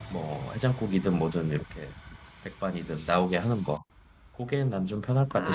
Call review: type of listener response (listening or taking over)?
taking over